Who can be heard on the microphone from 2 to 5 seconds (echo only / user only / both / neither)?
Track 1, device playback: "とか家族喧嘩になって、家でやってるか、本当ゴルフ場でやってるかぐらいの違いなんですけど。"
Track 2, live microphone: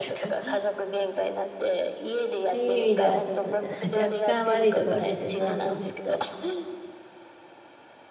both